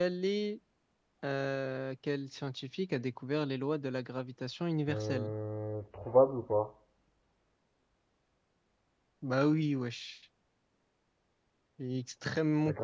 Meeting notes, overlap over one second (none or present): none